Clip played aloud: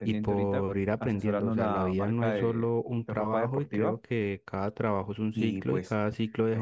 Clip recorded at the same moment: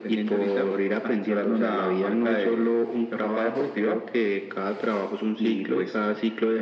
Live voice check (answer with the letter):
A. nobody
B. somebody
A